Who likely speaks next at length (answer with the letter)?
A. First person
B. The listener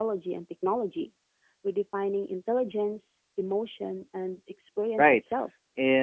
B